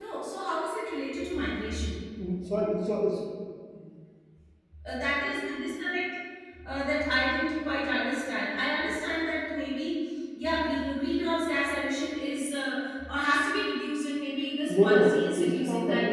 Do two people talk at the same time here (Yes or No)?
Yes